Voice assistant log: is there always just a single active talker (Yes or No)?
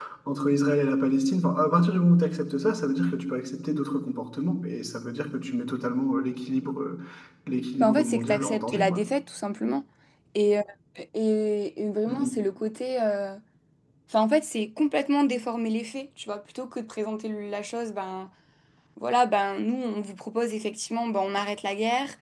No